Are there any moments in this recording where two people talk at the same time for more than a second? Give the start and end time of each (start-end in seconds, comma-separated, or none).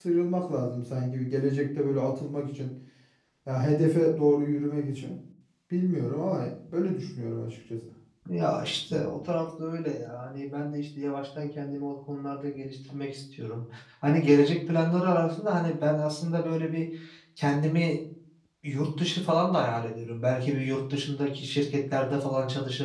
none